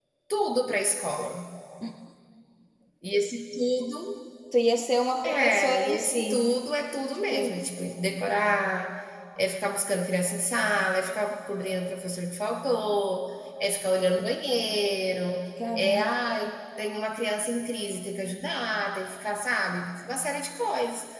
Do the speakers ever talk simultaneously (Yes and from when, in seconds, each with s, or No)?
Yes, from 5.2 s